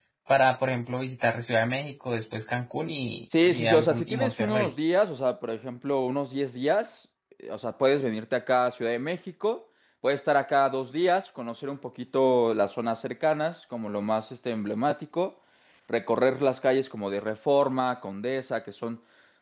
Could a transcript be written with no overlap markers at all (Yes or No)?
No